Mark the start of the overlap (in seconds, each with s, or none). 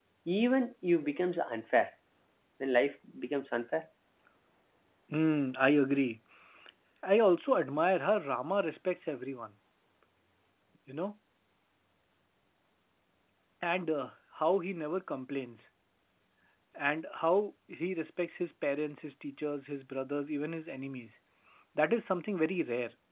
none